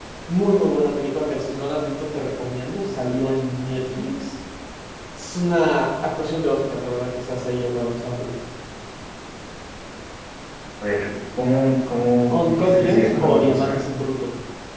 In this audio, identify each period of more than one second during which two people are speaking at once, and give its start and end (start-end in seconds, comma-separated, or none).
12.4-13.7